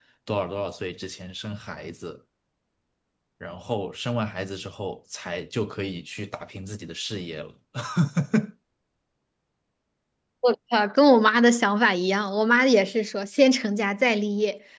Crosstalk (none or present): none